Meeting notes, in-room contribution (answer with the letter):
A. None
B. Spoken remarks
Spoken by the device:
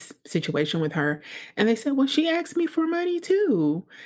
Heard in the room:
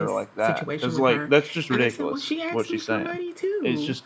B